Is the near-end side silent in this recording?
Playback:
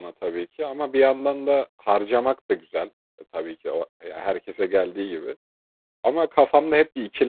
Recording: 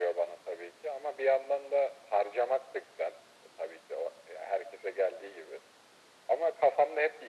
Yes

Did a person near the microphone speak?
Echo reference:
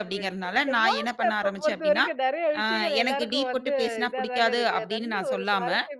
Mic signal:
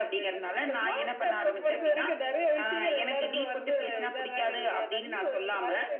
Yes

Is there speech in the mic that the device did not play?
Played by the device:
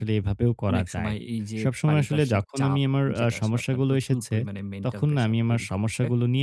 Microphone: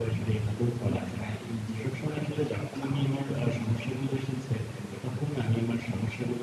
No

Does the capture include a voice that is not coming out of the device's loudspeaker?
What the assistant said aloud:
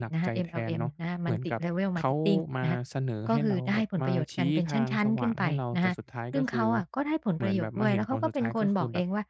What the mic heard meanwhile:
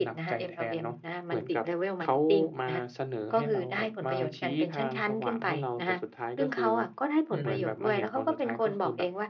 Yes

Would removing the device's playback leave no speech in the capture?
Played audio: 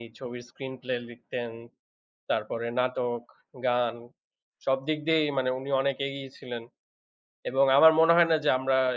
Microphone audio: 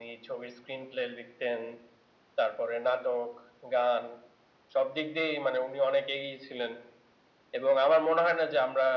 Yes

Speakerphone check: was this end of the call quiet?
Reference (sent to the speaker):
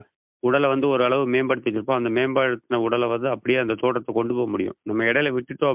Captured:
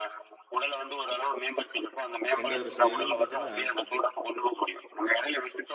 No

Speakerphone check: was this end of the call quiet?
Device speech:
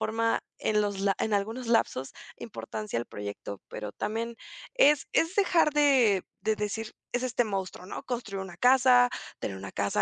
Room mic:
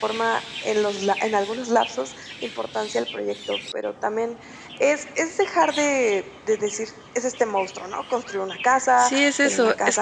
No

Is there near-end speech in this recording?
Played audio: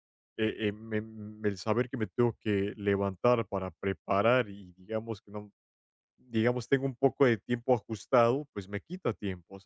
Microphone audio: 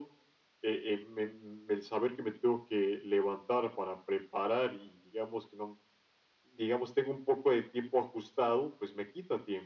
No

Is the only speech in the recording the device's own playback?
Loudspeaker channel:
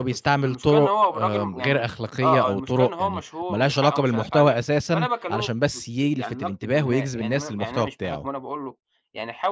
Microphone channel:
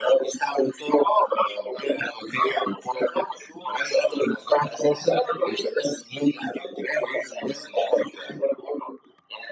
Yes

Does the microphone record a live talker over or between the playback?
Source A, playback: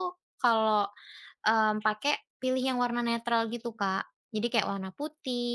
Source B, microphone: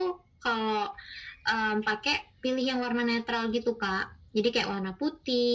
No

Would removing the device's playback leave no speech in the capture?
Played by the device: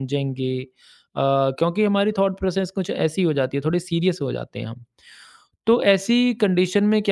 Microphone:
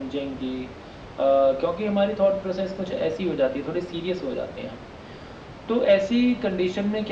Yes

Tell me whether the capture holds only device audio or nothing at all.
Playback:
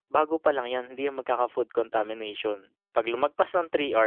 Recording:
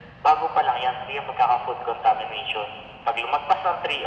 Yes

